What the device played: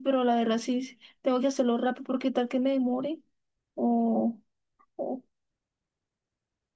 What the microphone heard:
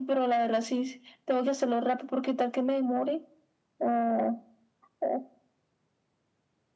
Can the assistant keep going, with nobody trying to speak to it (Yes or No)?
Yes